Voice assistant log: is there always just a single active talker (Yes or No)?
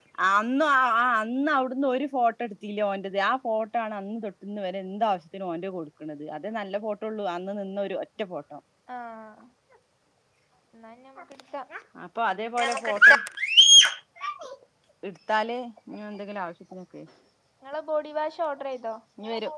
Yes